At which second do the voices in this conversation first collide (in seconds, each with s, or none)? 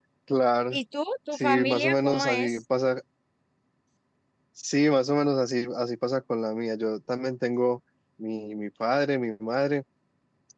1.3 s